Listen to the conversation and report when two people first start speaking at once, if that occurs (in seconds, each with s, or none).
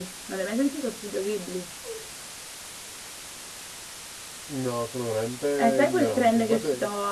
5.6 s